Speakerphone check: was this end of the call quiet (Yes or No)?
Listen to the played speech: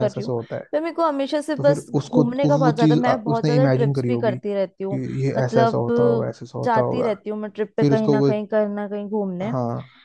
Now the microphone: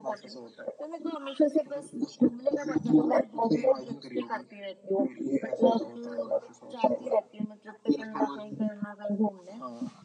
Yes